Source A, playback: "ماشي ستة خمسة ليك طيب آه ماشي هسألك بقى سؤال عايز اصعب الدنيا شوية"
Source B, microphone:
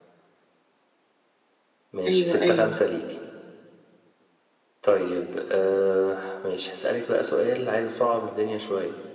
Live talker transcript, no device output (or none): أيوة أيوة